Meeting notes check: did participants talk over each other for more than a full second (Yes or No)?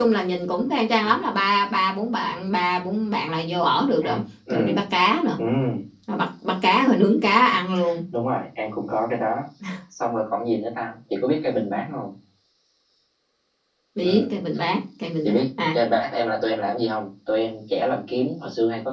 No